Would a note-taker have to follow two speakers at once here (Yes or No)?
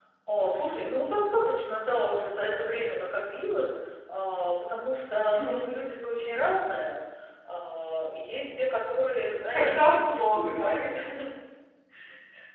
Yes